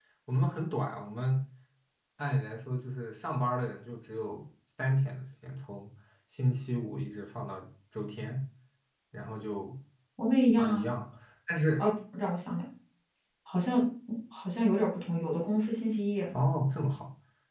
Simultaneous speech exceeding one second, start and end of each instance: none

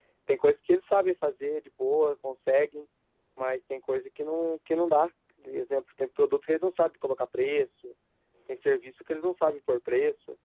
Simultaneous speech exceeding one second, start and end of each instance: none

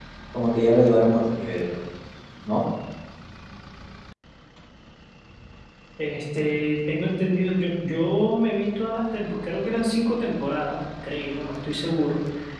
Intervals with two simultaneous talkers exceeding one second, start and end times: none

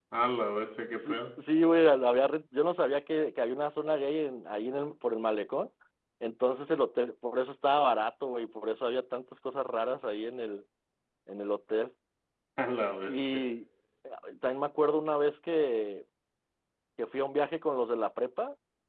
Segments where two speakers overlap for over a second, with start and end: none

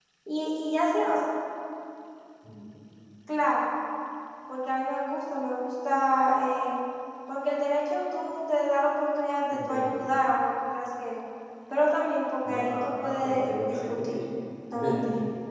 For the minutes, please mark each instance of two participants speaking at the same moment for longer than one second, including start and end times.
12.5-14.2

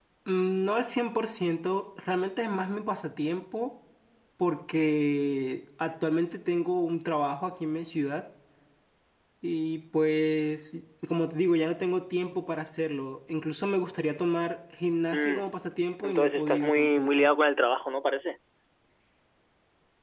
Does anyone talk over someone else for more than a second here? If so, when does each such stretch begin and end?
16.0-17.3

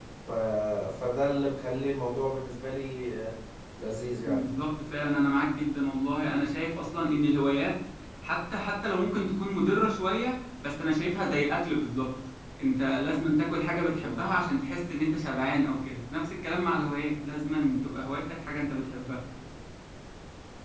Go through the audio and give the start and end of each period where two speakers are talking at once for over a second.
none

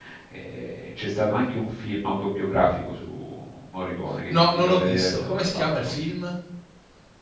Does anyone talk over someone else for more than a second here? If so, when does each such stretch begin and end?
4.3-5.9

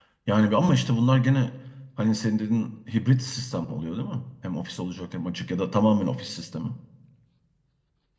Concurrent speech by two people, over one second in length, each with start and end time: none

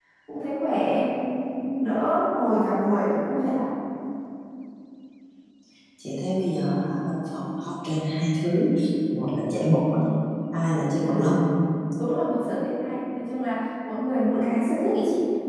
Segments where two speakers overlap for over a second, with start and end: none

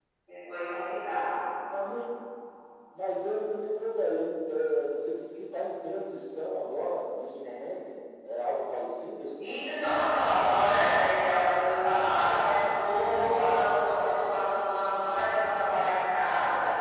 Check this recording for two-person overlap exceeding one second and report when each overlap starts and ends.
none

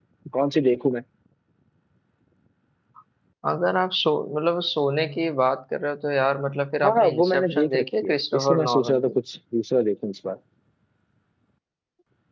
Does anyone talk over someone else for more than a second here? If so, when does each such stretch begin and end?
6.8-9.1

